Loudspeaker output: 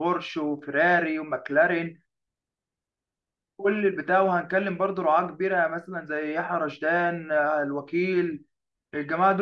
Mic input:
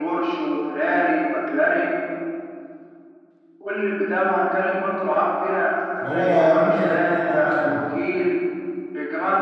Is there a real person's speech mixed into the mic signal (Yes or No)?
Yes